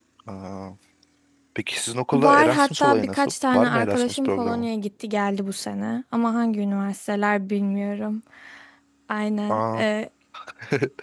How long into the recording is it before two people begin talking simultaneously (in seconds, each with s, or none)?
2.1 s